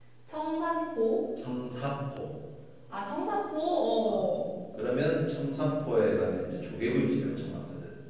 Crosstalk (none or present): none